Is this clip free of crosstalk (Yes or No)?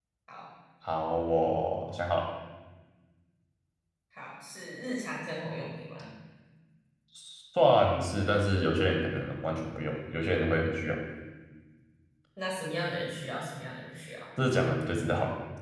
Yes